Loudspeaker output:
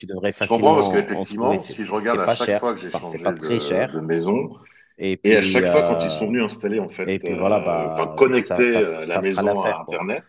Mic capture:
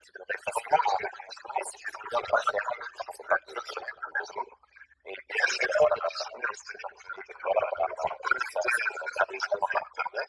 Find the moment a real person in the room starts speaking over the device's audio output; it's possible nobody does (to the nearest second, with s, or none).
none